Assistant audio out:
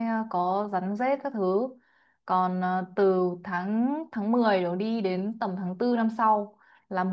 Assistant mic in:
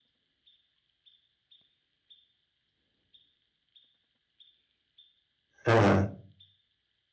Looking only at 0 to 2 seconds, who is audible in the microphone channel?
neither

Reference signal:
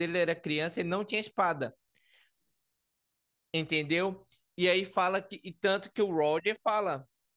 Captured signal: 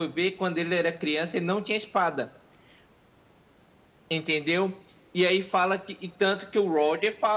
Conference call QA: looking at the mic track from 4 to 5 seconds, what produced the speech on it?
echo only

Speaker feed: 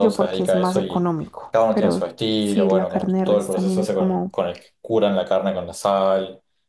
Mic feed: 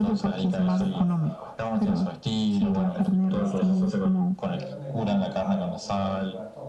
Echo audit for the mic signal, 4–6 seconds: both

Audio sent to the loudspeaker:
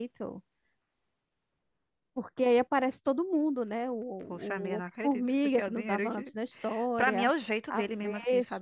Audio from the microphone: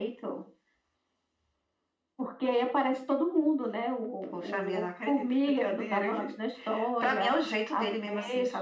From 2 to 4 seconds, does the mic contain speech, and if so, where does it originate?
echo only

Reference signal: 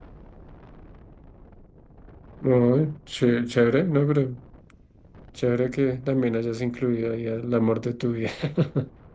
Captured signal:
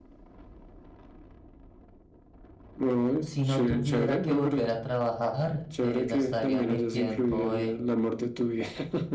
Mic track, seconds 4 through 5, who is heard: both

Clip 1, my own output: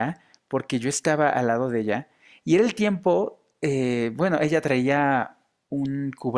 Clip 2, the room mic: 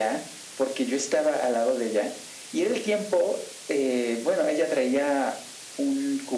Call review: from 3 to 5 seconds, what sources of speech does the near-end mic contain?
echo only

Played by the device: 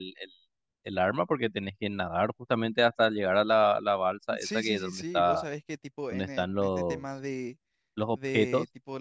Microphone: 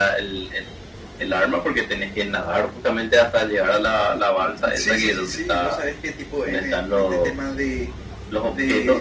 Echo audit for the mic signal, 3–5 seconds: echo only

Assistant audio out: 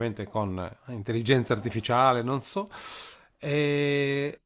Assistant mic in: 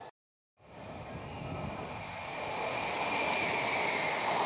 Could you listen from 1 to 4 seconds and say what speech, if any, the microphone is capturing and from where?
neither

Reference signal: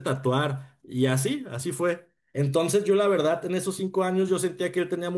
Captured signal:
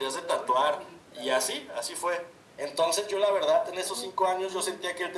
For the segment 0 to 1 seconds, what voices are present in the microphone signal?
both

